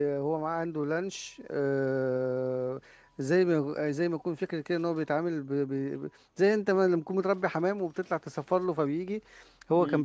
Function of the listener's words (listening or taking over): listening